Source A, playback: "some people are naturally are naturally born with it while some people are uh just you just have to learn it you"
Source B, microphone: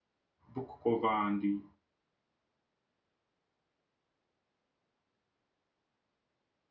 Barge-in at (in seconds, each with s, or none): 0.5 s